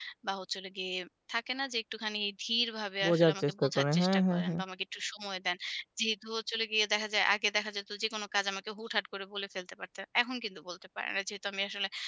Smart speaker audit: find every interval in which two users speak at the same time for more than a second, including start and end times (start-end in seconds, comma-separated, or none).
3.0-4.6